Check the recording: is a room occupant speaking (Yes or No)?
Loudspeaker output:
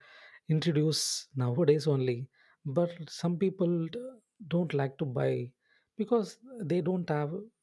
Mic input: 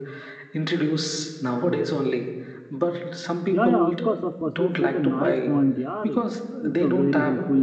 Yes